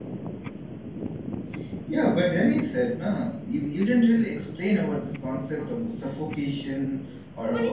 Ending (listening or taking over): taking over